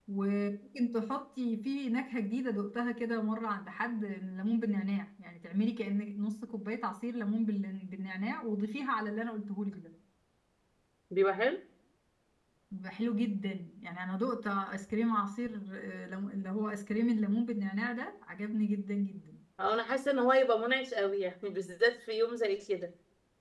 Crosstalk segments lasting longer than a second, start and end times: none

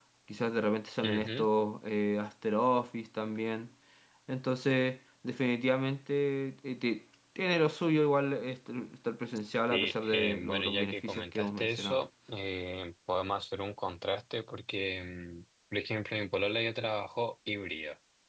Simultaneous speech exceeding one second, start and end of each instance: 9.7-12.0

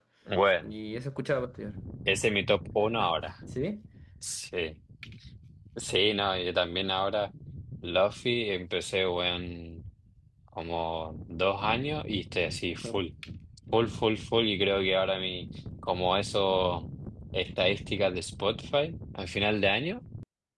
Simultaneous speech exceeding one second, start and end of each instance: none

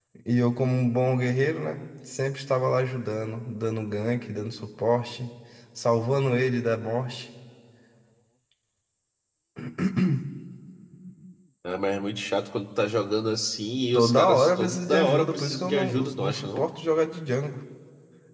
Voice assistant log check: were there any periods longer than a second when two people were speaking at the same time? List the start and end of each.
13.9-16.7

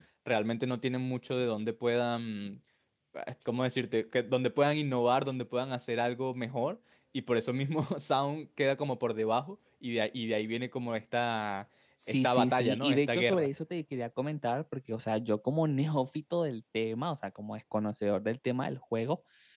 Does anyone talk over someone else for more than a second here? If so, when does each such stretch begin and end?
12.1-13.5

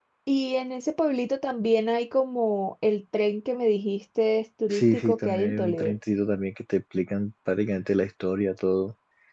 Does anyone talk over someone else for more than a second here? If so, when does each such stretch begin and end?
4.7-6.0

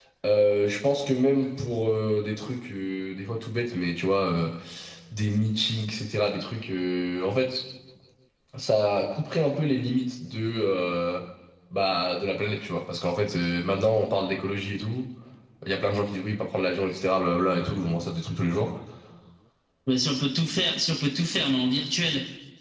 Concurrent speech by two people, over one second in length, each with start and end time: none

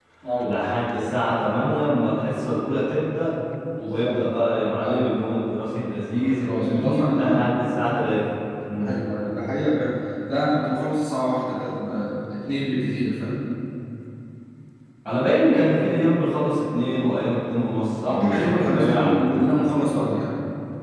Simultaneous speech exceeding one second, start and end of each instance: 6.1-7.5, 18.0-19.4

